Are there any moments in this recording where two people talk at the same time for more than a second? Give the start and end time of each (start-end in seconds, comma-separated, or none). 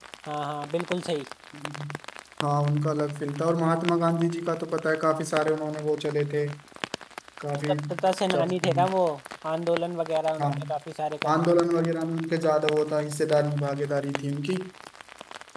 none